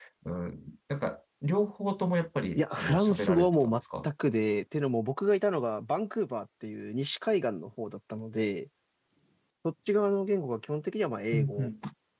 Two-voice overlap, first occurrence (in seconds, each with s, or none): 2.5 s